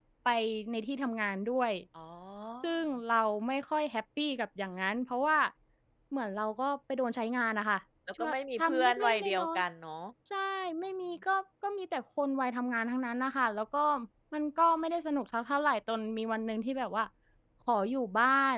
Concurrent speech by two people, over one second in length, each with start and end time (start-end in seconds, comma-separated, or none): 8.2-9.6